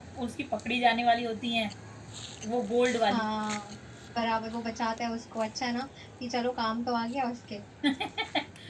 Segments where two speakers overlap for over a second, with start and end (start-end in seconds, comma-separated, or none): none